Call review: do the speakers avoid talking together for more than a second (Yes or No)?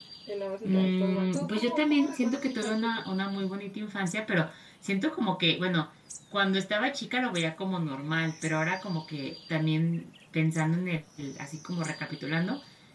No